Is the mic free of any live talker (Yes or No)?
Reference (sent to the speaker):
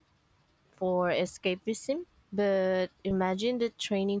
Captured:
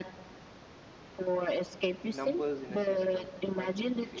No